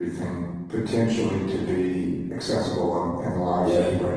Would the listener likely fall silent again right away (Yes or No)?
No